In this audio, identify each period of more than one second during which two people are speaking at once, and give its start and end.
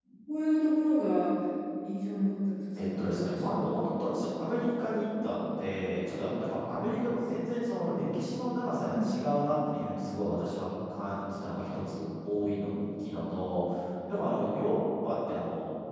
2.7-4.1

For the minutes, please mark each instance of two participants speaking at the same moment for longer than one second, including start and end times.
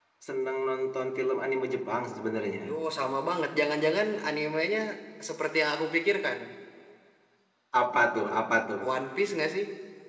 none

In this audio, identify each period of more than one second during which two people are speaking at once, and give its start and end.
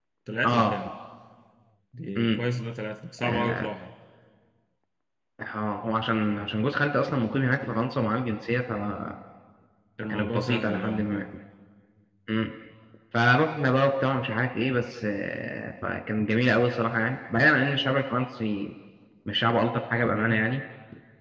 10.0-11.2

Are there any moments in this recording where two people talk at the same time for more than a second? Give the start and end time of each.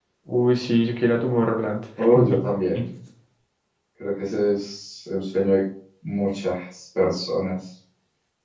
none

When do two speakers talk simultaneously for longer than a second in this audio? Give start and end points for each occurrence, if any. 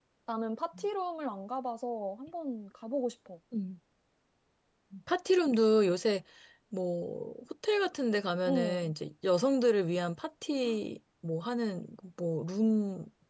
none

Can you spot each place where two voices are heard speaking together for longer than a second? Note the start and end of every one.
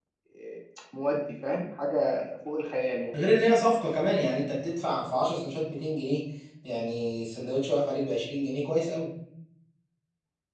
none

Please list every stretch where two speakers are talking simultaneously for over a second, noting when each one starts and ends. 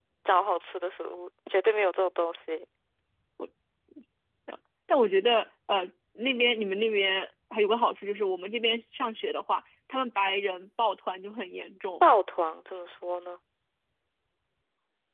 none

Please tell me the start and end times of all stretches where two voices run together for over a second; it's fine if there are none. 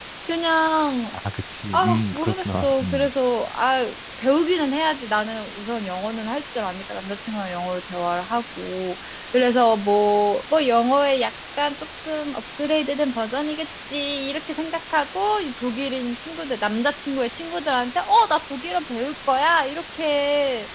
1.7-3.1

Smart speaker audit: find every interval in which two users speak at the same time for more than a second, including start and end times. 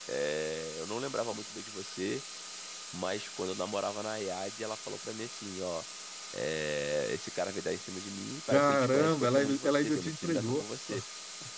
8.5-10.6

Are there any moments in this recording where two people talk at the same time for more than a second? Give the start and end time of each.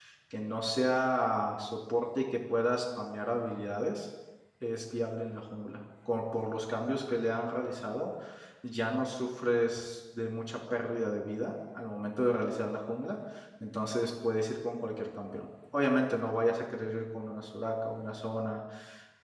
none

